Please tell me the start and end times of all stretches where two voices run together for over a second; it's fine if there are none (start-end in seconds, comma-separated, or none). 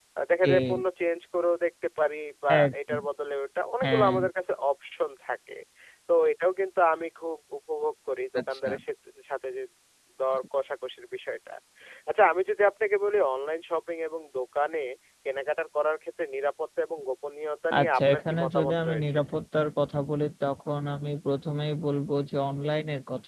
17.8-19.2